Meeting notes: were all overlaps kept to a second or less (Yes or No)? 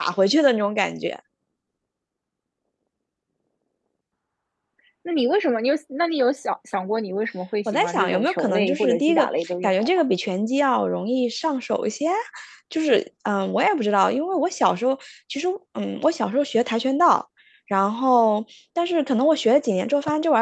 No